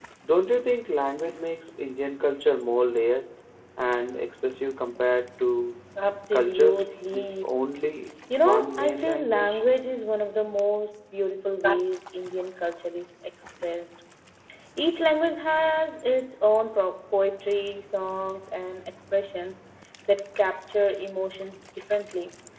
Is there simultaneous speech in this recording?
Yes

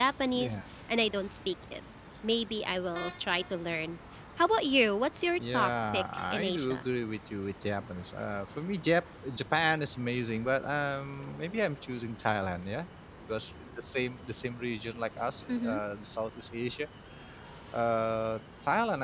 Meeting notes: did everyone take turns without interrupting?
No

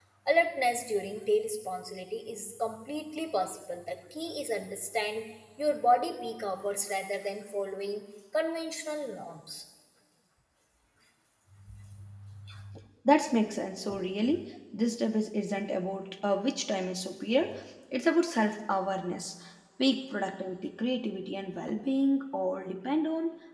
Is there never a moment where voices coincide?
Yes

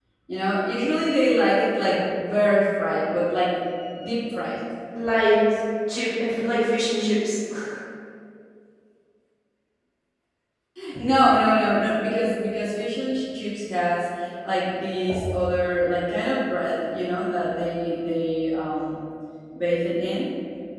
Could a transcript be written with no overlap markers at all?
Yes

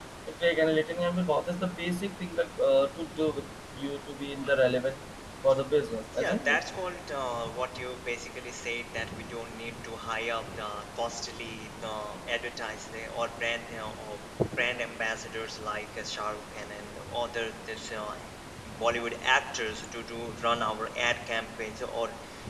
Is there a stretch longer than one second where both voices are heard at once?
No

